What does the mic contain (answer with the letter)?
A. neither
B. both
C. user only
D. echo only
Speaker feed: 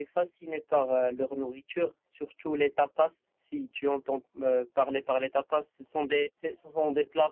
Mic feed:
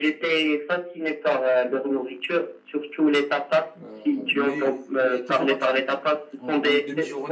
B